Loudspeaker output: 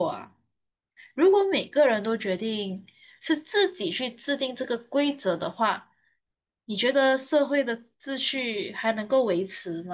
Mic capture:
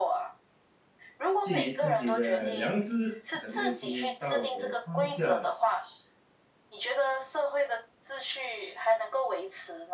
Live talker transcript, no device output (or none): 基于自己的良知和内心道德框架来行事，